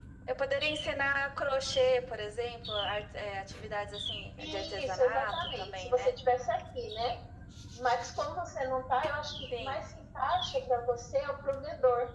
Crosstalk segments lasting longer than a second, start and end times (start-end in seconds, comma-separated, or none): 4.4-6.2